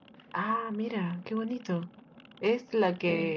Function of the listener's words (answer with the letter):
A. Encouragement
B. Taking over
A